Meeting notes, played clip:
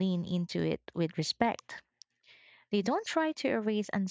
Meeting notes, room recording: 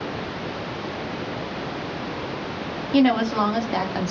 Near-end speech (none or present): present